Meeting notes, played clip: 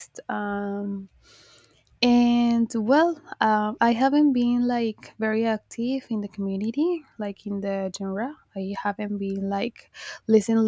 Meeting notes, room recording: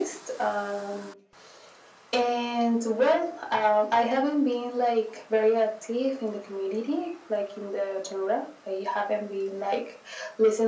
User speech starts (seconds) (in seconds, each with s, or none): none